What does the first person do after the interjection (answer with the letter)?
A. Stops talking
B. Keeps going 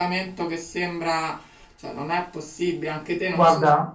A